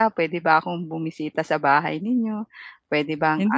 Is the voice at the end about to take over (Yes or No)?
Yes